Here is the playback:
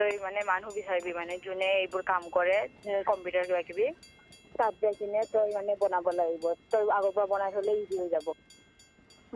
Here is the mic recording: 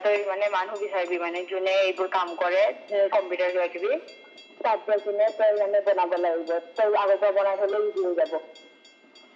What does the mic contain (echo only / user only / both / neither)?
echo only